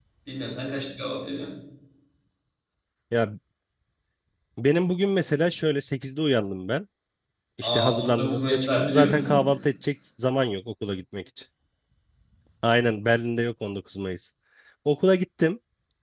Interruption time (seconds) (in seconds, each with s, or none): 7.6 s